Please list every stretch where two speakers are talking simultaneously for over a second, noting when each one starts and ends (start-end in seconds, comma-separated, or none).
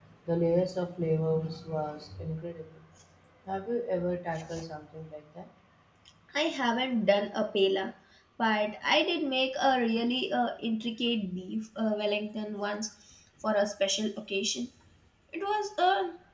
none